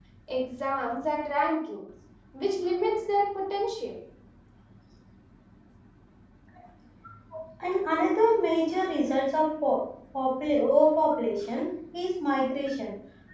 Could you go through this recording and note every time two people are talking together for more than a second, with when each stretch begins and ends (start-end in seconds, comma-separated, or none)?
none